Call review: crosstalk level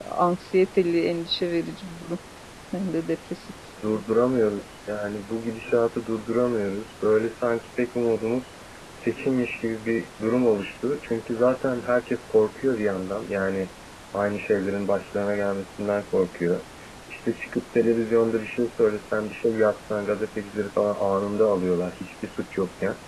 none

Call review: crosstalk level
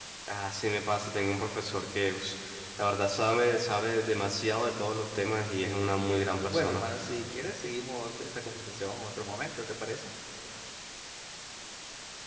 present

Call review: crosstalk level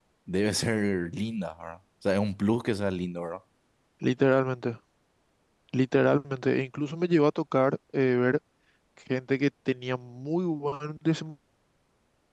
none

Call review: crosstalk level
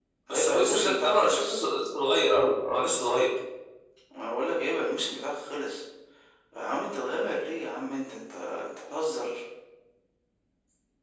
present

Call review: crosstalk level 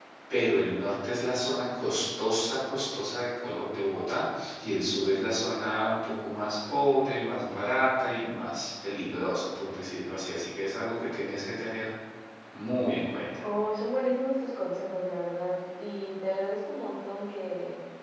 none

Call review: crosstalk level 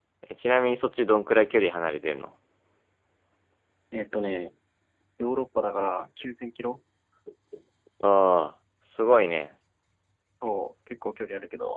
none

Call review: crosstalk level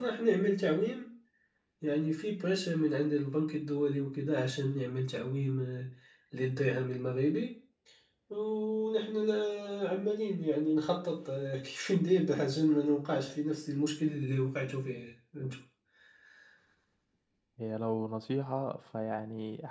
none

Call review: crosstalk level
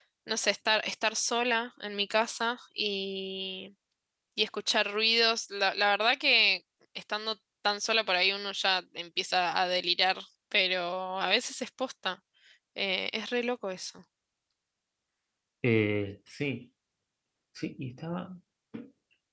none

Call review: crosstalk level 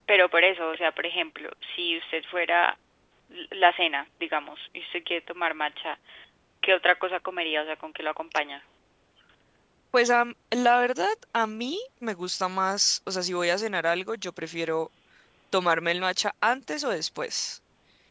none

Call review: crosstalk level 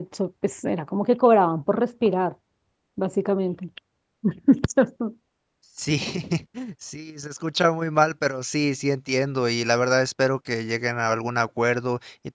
none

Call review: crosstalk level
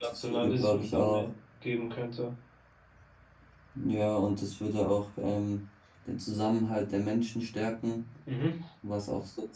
present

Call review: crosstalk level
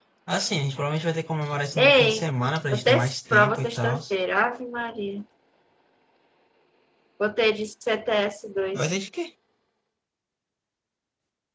present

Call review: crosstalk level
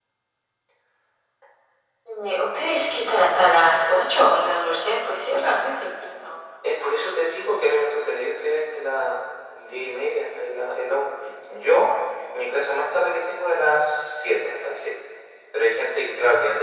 none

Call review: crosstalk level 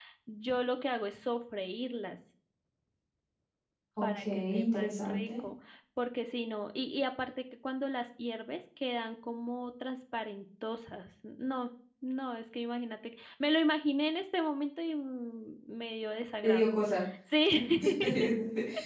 present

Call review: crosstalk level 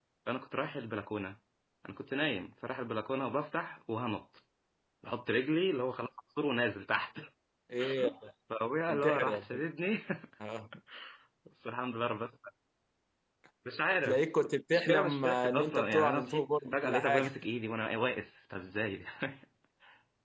present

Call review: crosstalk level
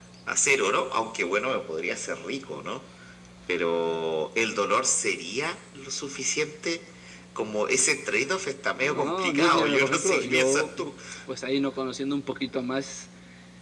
present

